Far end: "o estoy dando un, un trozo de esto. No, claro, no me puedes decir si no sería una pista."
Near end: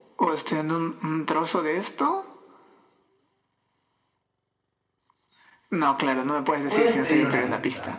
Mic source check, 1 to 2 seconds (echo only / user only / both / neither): echo only